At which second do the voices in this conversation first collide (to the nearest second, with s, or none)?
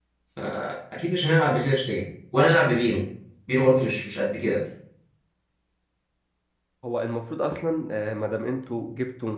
none